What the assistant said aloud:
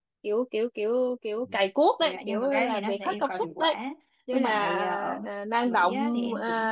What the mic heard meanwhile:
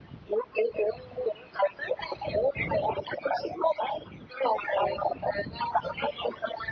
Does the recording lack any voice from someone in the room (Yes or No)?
Yes